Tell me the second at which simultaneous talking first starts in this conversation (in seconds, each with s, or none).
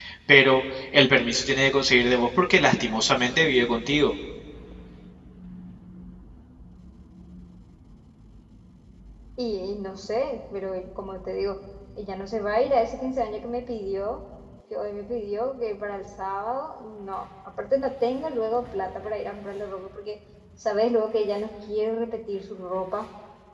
none